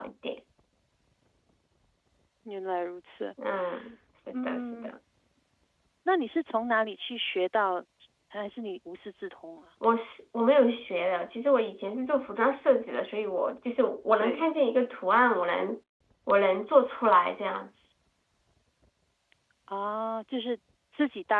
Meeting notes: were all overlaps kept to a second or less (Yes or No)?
Yes